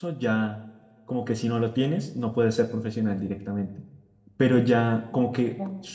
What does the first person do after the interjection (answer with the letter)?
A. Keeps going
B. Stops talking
A